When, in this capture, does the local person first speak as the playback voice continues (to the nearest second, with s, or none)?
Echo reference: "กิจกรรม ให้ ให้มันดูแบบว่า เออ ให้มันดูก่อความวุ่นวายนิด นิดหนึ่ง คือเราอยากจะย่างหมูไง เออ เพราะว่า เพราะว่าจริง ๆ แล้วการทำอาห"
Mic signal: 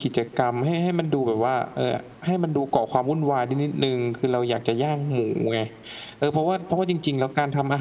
none